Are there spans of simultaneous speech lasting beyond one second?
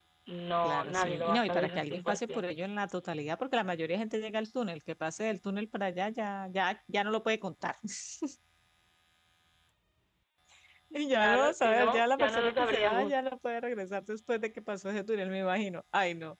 Yes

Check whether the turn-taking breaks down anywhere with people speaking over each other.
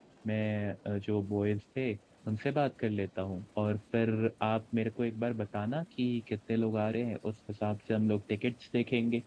No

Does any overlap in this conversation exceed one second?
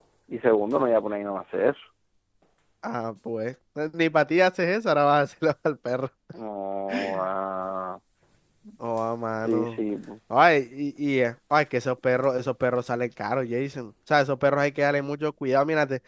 No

